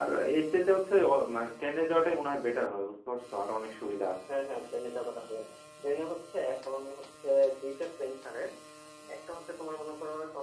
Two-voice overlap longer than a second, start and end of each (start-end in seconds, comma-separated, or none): none